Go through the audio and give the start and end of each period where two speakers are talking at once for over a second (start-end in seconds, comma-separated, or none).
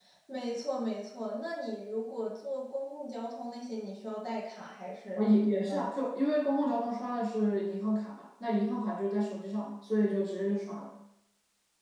none